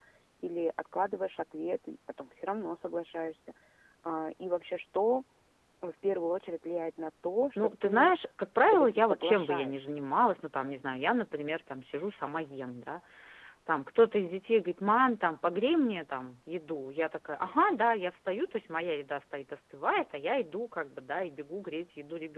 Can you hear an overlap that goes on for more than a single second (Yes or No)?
Yes